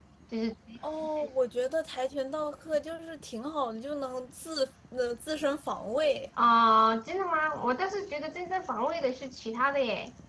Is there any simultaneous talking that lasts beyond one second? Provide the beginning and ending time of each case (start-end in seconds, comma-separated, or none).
none